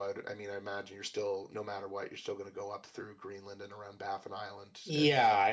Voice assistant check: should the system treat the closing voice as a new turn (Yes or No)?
Yes